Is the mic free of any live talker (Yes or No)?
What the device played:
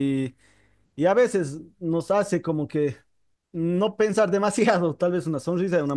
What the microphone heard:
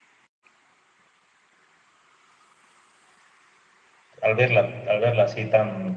No